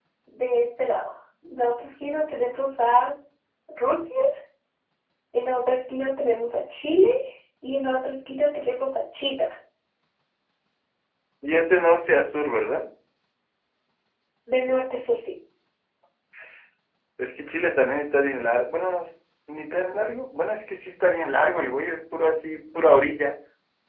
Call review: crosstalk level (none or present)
none